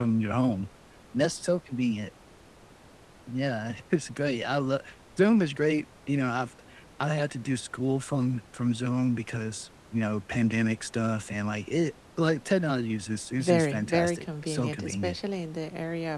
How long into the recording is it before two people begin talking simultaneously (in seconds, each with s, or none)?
13.4 s